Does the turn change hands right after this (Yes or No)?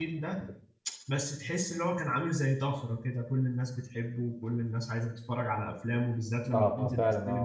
Yes